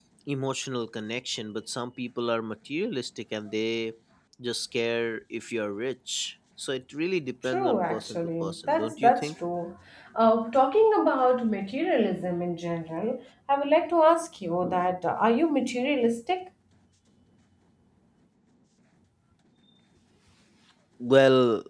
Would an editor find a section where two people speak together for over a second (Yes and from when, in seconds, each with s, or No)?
Yes, from 7.4 s